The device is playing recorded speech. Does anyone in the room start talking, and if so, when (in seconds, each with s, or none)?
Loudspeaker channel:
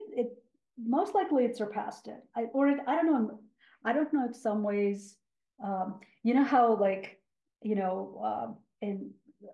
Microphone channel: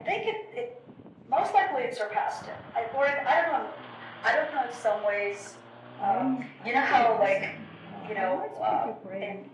6.0 s